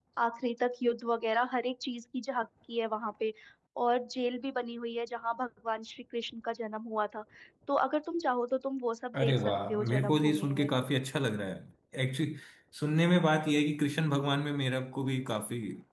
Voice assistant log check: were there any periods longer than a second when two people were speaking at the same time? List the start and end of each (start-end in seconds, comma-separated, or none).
9.2-10.7